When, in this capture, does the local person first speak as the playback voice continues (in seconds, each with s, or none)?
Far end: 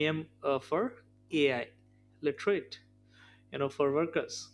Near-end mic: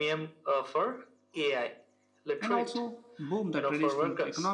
2.4 s